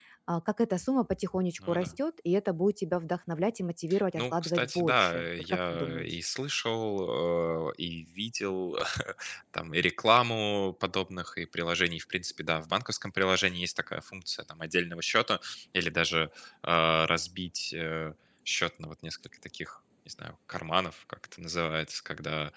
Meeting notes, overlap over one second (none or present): present